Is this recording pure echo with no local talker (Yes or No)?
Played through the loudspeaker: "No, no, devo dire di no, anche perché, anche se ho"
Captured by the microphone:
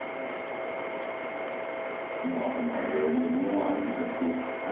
Yes